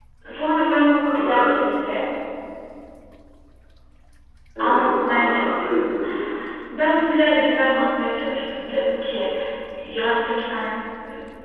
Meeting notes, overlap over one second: present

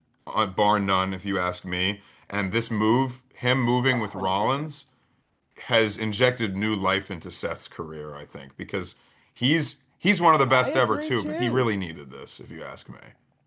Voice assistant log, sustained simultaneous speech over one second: present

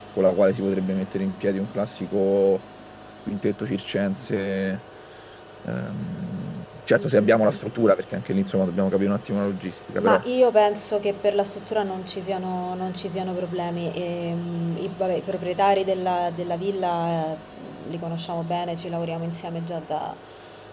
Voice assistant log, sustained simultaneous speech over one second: none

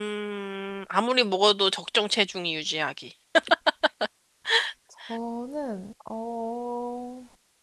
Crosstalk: none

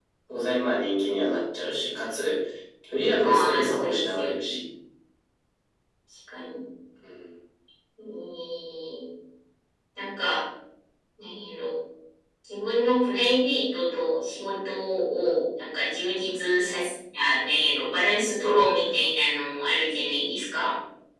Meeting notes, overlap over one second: present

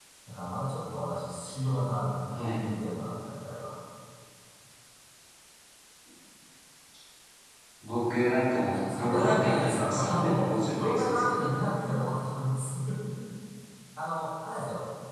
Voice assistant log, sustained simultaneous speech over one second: present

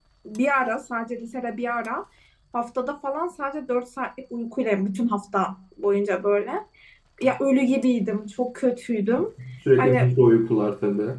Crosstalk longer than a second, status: none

